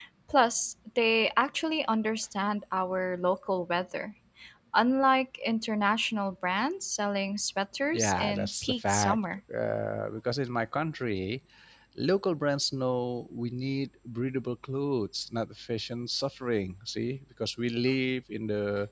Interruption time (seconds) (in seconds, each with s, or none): 7.9 s